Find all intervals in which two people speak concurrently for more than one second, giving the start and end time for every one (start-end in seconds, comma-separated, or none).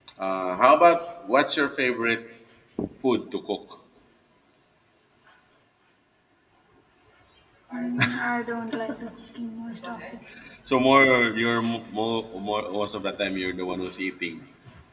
none